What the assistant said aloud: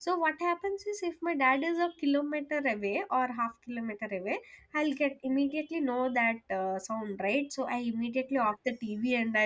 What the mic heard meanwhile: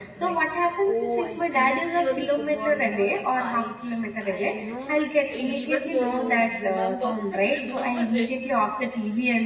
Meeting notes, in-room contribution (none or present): present